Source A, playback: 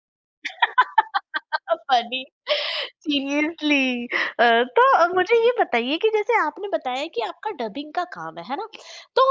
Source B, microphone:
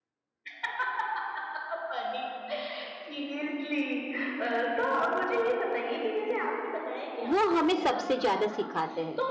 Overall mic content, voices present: both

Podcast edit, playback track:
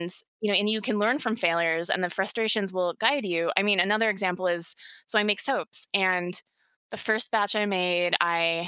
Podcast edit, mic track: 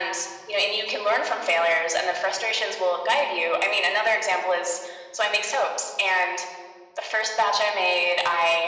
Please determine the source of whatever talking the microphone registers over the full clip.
echo only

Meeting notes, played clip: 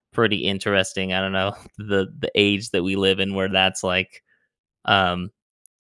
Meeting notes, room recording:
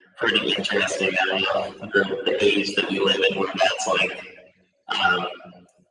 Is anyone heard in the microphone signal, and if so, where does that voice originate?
echo only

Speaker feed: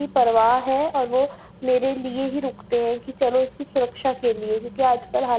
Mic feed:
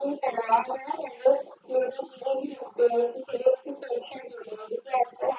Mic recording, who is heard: echo only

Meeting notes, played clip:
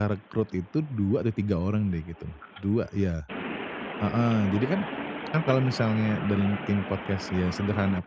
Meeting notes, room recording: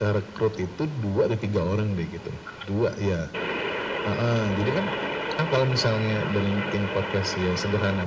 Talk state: echo only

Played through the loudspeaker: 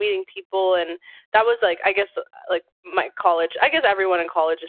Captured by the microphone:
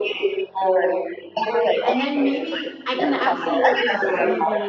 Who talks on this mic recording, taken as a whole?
both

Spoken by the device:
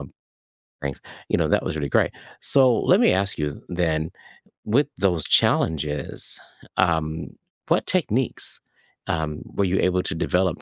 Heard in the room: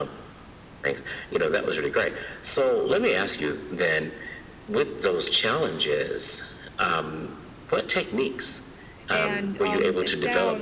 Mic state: both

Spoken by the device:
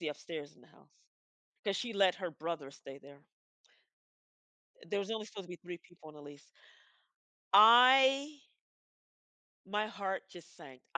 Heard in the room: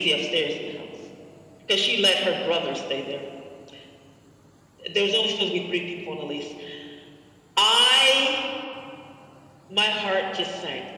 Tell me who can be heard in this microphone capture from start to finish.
echo only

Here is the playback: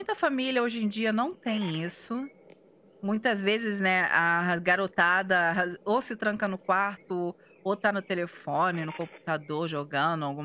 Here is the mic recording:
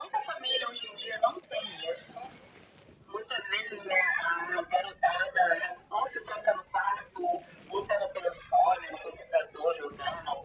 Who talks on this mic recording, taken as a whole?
echo only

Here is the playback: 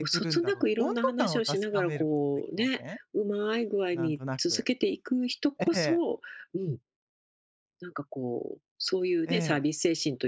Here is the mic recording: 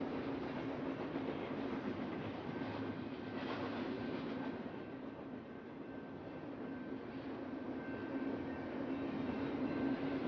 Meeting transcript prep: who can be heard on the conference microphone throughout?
neither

